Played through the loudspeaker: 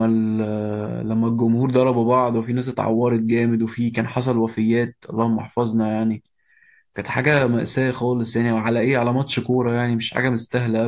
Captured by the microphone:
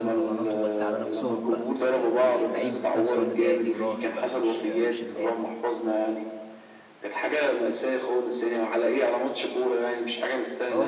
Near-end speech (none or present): present